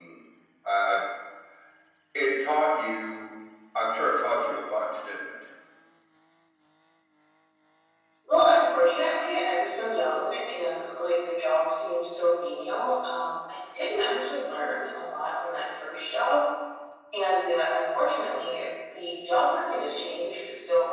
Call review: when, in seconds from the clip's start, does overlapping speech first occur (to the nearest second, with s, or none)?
none